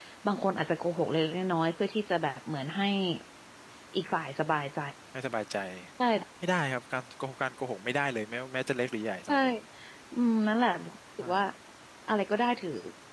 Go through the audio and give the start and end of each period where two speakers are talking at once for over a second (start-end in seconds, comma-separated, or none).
none